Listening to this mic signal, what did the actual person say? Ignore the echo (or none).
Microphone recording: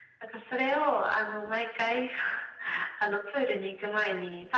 none